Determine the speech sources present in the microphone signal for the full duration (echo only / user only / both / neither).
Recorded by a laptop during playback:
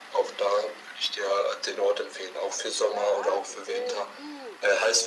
both